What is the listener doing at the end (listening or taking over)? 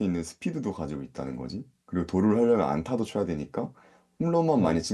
listening